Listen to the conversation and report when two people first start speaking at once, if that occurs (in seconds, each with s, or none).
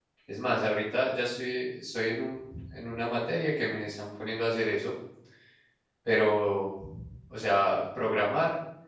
none